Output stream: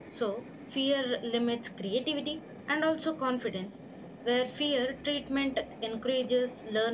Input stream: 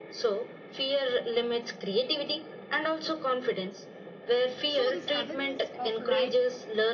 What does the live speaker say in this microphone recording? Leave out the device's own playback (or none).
so this awareness of right